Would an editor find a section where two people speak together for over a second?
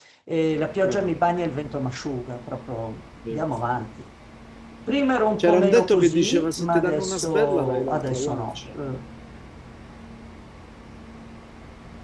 Yes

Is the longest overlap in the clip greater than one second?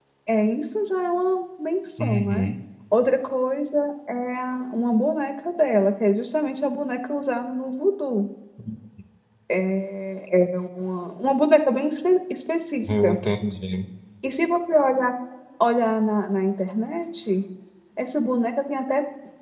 No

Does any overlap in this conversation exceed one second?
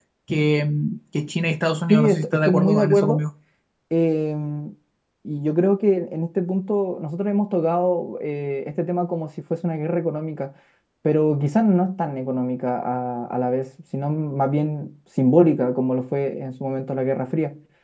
Yes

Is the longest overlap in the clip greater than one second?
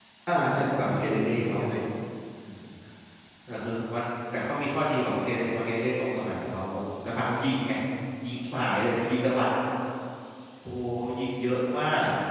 Yes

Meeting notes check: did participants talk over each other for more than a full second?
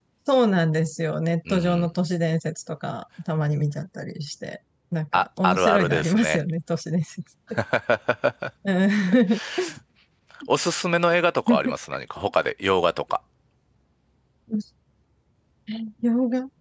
Yes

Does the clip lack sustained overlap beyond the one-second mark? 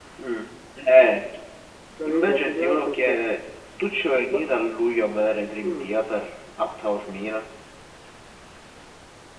No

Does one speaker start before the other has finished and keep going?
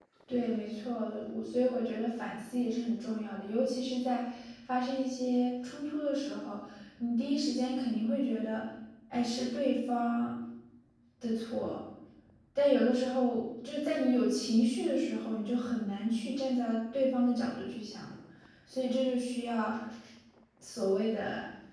No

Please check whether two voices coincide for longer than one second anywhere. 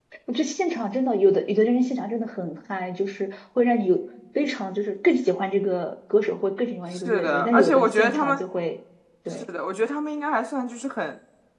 Yes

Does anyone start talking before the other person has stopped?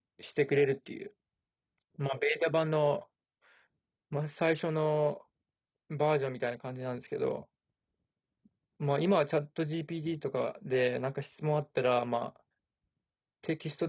No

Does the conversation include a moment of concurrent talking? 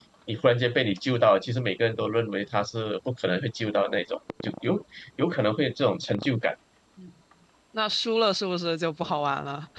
No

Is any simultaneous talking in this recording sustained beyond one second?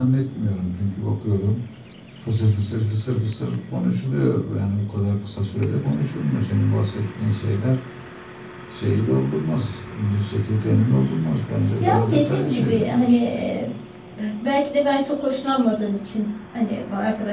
Yes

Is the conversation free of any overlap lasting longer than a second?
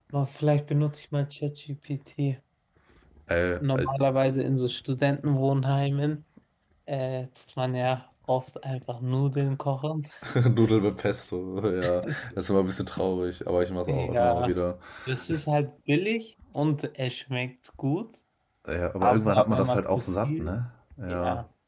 No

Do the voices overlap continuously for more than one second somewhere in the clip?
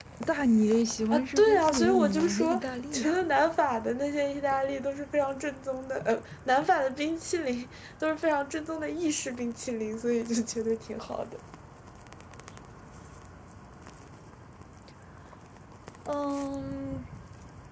Yes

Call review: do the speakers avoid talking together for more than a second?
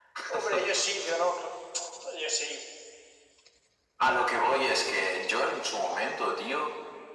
Yes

